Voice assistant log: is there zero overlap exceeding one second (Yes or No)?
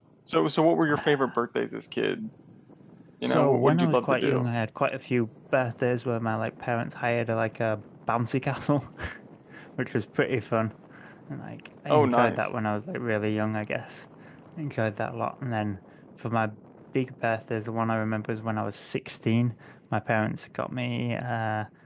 No